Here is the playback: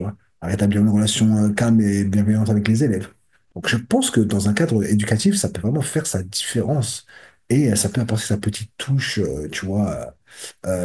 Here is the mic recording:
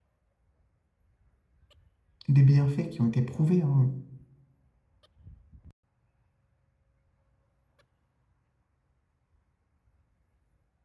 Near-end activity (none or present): present